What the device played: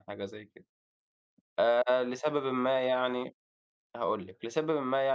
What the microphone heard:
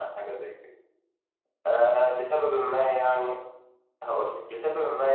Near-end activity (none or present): none